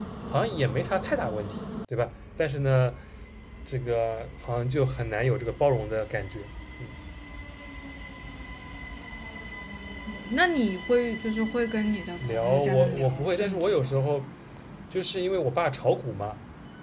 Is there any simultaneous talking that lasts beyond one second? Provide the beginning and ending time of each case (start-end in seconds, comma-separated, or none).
12.2-13.9